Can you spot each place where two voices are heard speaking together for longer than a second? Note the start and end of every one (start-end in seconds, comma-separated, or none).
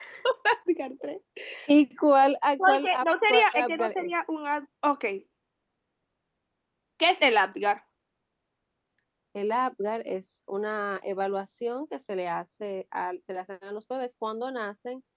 2.7-4.1